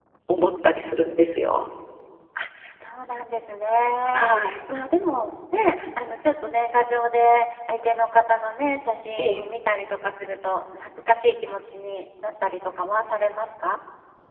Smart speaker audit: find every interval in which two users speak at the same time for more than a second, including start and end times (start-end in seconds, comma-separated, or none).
none